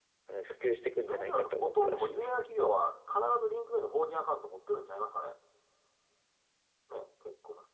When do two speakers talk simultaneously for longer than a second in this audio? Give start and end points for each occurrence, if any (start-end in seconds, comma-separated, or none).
1.0-2.4